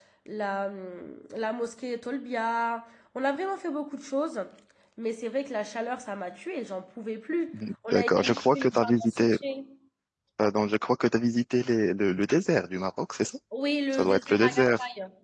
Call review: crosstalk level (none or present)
present